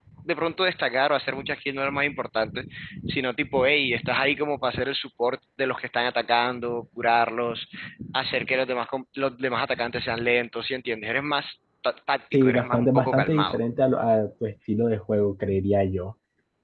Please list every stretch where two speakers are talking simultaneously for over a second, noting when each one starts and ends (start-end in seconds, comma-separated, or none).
12.3-13.6